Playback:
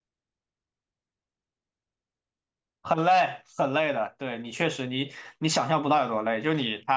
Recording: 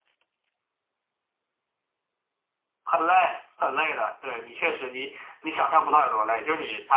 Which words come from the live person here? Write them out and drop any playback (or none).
none